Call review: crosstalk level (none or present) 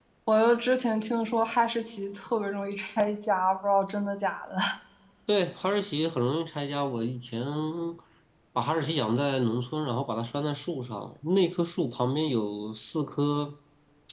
none